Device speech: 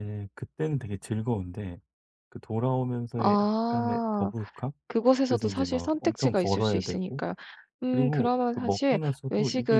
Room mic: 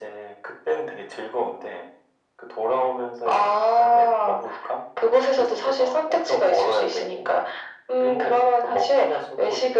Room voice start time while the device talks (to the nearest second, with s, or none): none